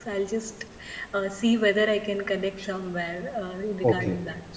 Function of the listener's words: taking over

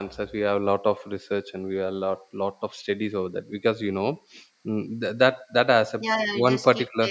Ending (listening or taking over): taking over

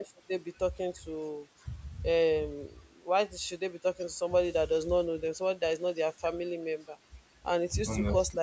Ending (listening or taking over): listening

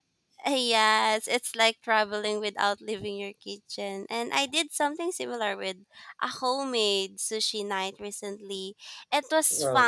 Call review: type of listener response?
listening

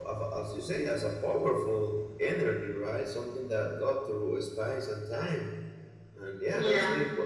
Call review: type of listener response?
listening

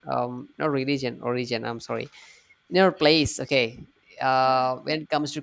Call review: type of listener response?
listening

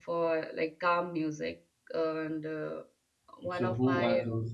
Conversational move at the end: taking over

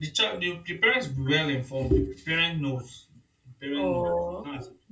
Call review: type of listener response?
taking over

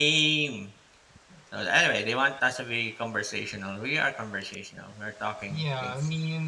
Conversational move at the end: taking over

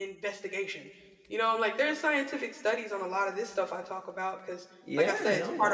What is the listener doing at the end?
taking over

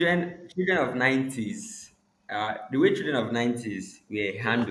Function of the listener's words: listening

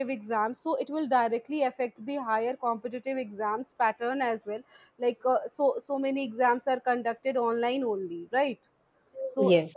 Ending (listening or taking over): listening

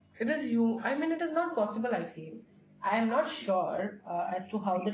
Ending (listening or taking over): taking over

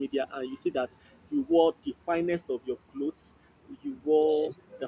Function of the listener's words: listening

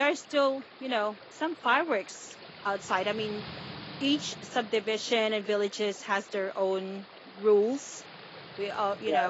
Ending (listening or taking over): taking over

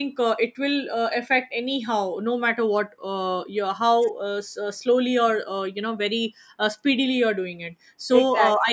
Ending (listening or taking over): listening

